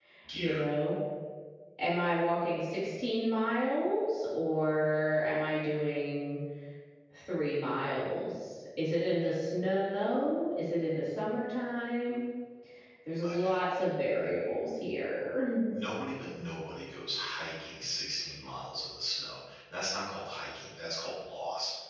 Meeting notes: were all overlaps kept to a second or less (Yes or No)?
Yes